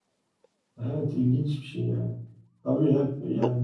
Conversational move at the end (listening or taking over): listening